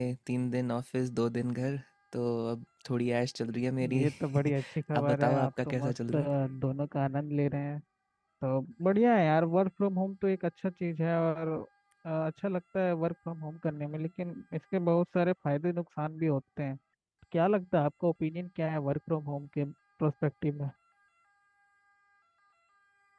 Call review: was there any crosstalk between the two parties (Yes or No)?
Yes